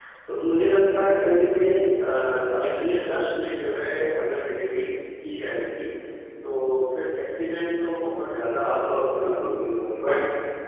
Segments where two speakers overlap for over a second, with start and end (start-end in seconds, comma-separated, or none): 8.4-9.7